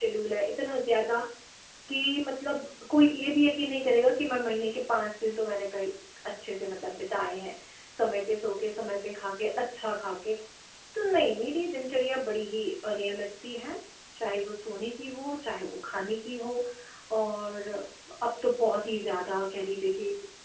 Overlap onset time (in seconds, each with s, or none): none